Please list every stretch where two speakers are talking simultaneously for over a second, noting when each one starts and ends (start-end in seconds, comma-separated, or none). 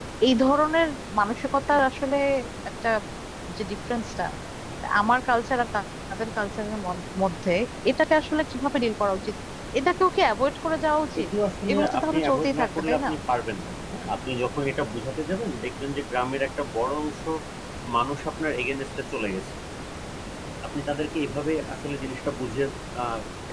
11.7-13.1